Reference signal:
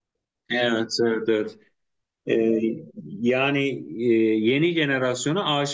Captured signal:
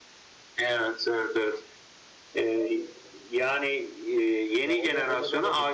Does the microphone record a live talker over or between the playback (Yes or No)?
Yes